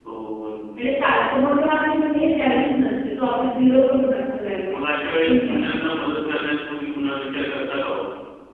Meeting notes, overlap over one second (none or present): none